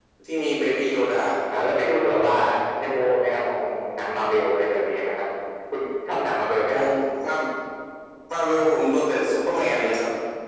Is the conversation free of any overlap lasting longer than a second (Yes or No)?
Yes